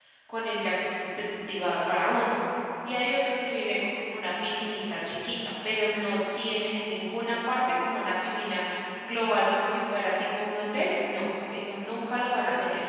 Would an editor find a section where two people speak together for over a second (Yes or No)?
No